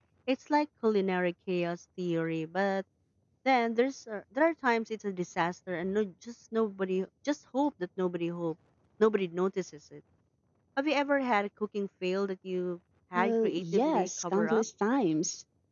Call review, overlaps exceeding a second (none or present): present